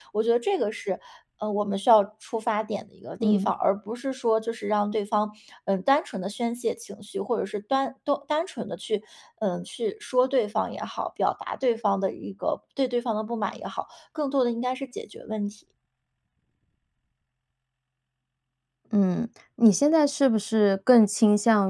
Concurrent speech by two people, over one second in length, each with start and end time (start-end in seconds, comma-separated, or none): none